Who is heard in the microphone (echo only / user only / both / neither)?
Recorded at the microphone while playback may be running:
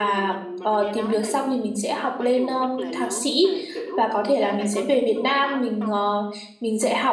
both